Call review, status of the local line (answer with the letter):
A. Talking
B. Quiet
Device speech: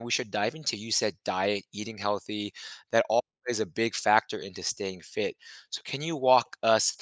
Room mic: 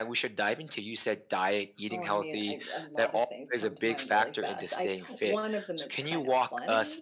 A